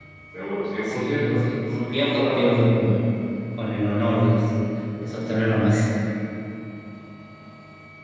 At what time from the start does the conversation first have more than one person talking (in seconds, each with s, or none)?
0.9 s